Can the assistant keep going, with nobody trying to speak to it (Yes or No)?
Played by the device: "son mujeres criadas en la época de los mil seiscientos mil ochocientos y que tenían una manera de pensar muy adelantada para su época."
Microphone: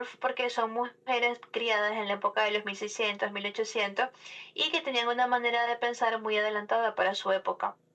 Yes